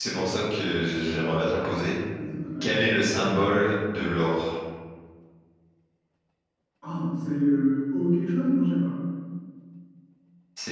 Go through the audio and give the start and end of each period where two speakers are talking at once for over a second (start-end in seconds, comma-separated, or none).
none